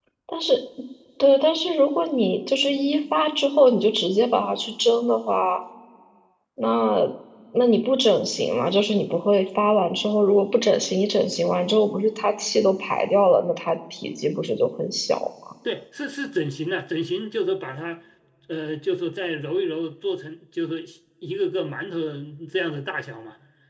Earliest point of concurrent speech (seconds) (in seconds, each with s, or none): none